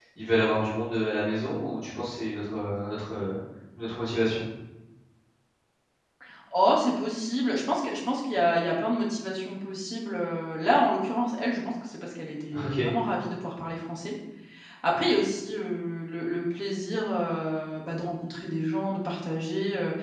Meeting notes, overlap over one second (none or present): none